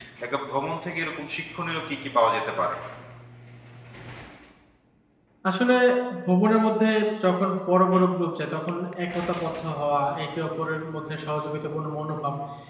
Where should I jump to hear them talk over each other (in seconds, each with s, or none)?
none